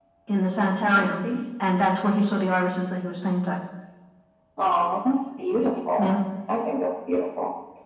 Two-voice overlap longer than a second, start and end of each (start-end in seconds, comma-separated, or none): none